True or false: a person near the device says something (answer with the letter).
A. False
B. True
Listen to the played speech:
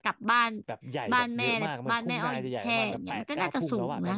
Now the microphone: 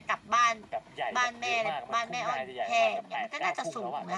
A